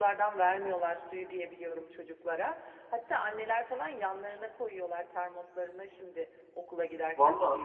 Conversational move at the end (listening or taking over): taking over